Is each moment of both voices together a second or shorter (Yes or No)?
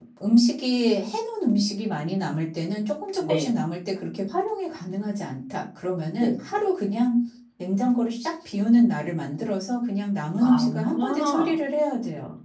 No